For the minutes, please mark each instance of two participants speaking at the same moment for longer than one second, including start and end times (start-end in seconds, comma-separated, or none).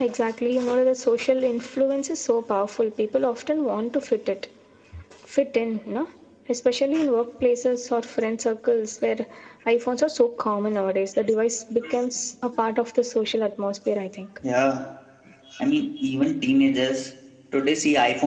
none